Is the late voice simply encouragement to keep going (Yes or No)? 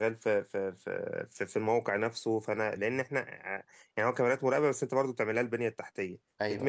Yes